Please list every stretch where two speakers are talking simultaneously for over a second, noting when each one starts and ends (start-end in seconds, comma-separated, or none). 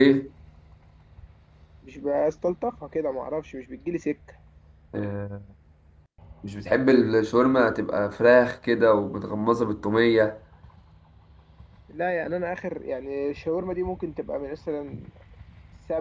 none